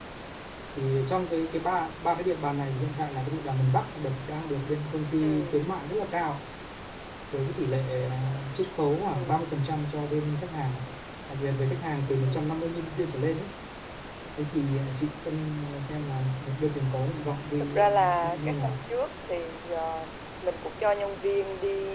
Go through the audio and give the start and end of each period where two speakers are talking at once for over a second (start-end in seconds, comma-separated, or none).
17.6-18.9